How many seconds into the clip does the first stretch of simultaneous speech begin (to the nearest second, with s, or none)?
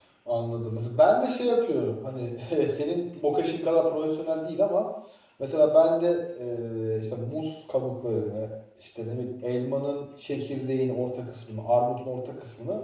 none